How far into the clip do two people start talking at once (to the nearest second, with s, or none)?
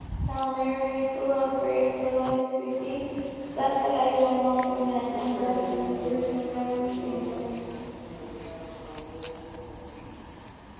5 s